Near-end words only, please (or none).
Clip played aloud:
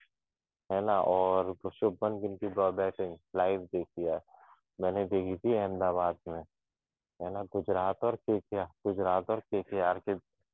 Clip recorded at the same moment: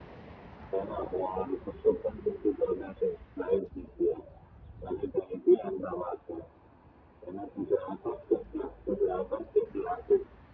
none